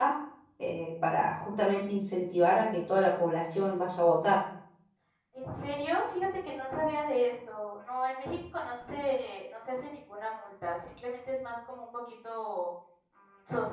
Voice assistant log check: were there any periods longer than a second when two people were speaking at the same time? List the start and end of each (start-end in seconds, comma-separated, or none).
none